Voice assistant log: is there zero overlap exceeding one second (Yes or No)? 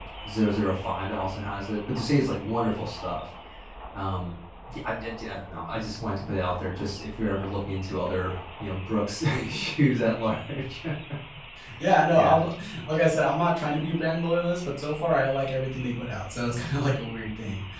Yes